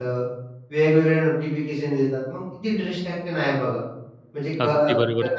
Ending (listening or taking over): taking over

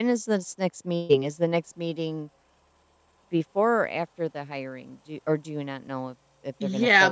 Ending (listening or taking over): taking over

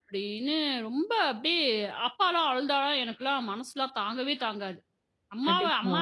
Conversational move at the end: listening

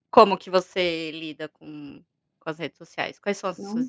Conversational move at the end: taking over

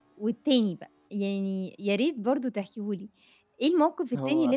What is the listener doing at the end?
listening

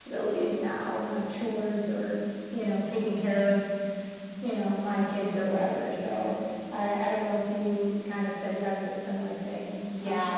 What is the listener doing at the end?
taking over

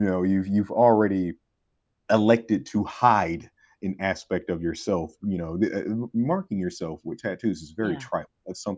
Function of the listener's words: listening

